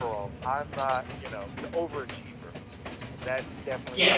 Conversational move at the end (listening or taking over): listening